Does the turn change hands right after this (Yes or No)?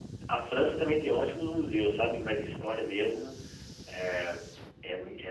No